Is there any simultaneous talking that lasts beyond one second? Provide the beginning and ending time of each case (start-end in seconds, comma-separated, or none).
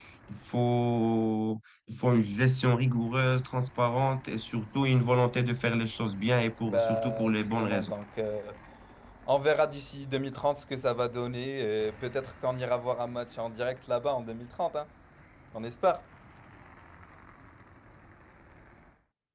6.7-7.9